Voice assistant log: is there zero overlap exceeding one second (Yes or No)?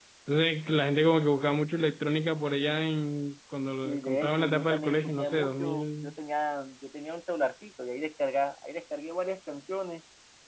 No